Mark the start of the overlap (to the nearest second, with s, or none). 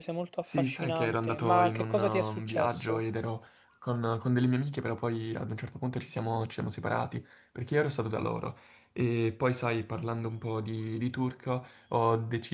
1 s